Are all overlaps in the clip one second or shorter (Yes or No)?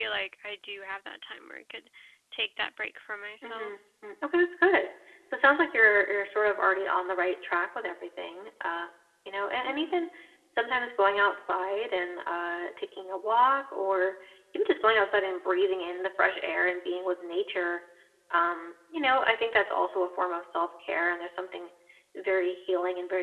Yes